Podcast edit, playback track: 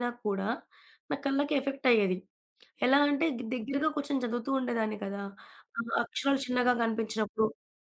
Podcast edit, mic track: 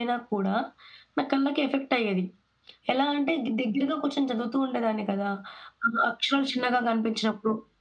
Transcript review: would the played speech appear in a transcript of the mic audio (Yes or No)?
Yes